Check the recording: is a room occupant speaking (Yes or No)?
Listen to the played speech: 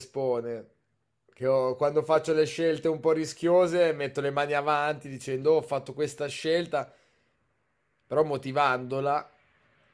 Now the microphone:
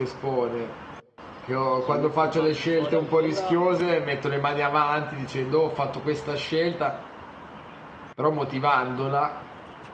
Yes